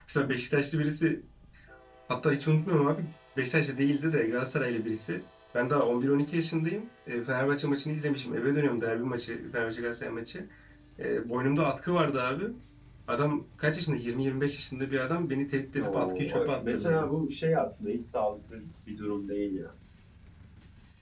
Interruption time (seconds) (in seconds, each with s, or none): 15.8 s